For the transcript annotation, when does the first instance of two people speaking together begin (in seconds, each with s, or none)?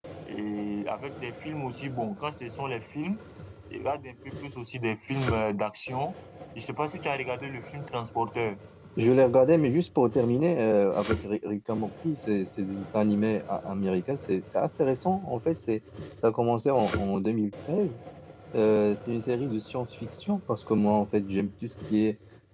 none